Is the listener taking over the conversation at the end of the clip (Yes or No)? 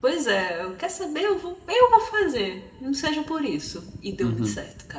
Yes